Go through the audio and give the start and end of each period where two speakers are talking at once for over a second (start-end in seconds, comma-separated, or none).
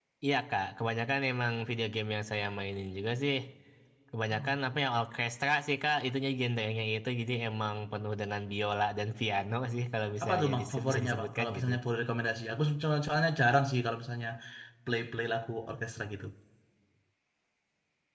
10.2-11.7